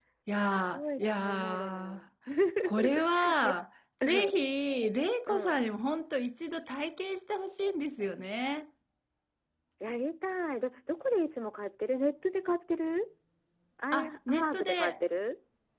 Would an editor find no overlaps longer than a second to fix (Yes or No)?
No